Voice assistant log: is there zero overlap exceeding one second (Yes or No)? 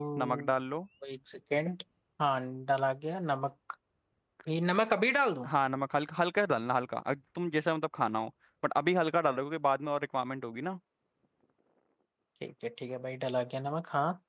Yes